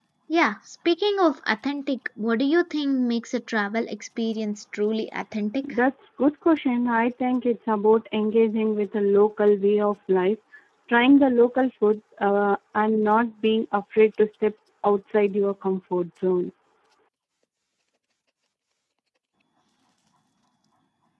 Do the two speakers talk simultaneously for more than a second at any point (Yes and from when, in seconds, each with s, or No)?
No